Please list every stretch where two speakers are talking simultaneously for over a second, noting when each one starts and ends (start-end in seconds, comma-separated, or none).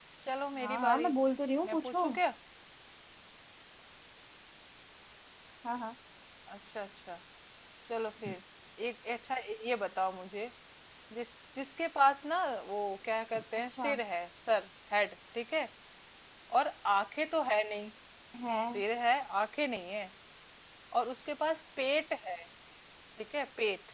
none